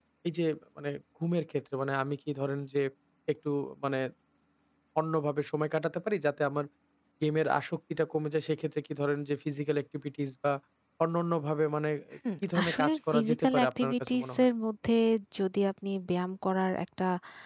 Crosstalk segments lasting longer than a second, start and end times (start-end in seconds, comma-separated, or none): 12.4-14.5